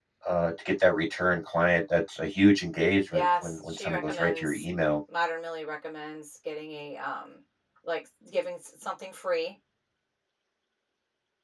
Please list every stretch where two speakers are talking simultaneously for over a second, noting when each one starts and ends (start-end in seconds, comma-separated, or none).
3.1-4.7